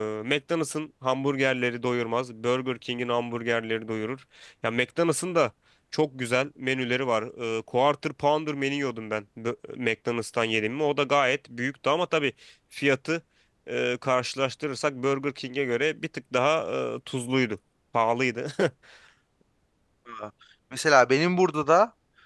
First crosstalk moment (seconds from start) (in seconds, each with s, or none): none